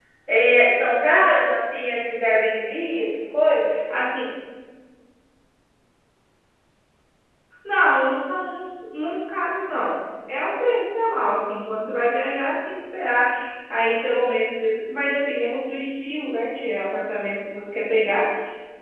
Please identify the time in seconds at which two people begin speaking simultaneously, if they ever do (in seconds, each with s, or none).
none